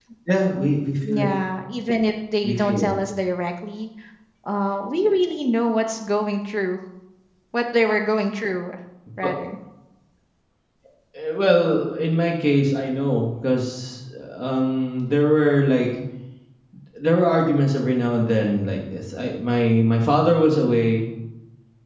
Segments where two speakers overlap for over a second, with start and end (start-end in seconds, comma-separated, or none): none